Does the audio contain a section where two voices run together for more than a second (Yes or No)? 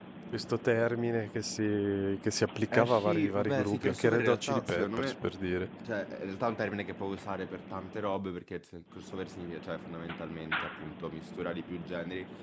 Yes